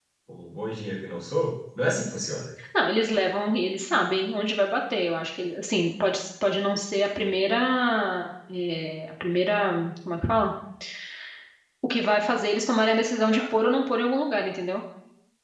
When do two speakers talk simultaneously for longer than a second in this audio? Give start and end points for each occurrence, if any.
none

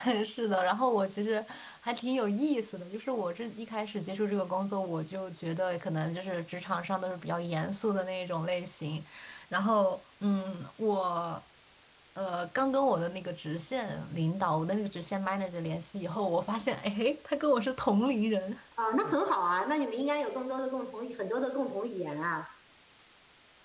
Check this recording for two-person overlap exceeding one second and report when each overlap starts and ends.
none

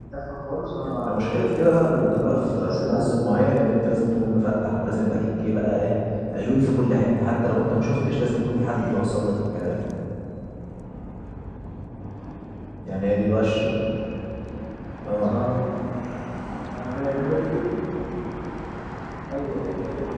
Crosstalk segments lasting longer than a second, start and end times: 2.2-3.5

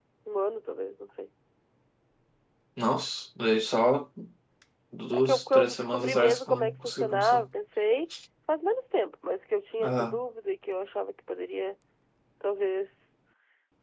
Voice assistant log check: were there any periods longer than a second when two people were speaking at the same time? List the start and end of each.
5.1-7.5

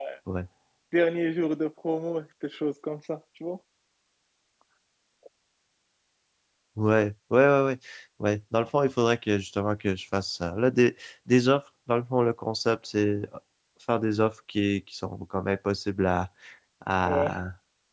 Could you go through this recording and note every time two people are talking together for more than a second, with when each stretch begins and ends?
none

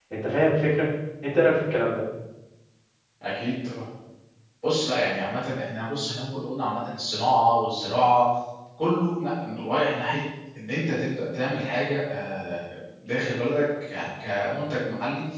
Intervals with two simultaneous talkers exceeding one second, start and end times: none

